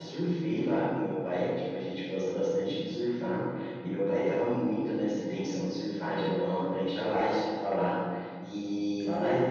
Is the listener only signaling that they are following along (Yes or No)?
Yes